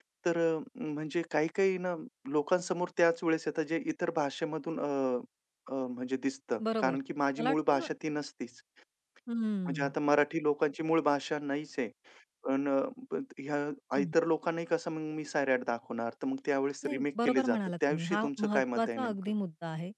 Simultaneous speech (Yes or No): Yes